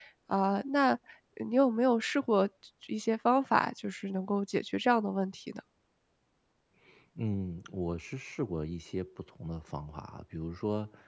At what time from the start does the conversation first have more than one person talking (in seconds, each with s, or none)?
none